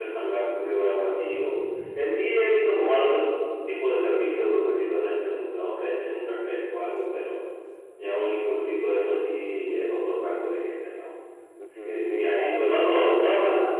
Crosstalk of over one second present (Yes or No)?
Yes